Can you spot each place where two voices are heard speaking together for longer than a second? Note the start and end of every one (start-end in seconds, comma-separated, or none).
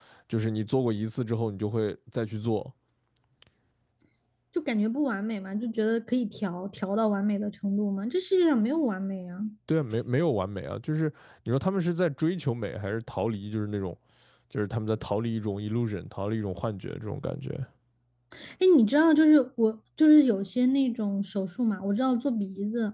none